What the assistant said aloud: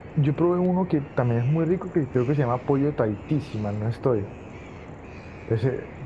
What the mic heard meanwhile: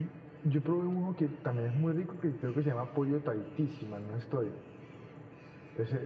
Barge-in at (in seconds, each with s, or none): none